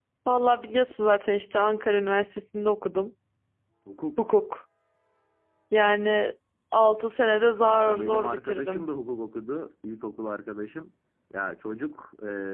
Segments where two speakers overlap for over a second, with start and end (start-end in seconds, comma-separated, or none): 7.6-8.9